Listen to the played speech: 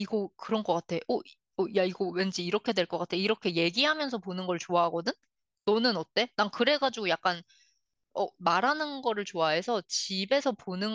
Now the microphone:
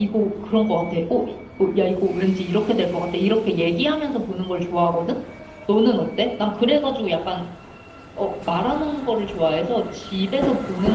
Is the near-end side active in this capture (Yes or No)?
No